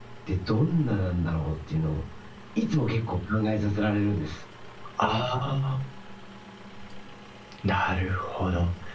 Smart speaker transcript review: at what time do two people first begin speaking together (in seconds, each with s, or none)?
none